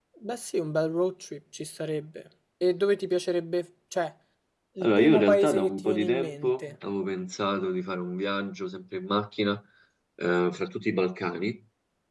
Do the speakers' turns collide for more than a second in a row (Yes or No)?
Yes